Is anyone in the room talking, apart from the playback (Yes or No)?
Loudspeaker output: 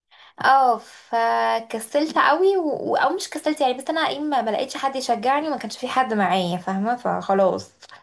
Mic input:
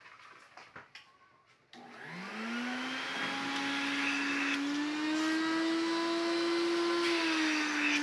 No